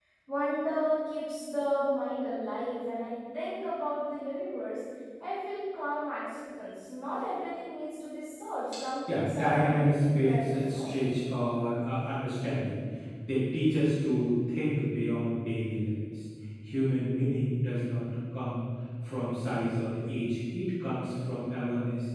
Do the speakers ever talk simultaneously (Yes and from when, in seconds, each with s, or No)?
Yes, from 9.1 s